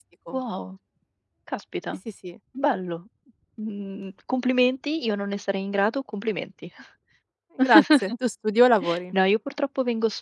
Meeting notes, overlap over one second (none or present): none